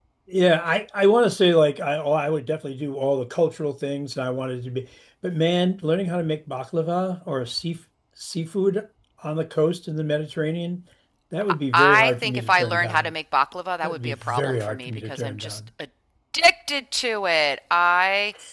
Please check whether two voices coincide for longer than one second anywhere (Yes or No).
Yes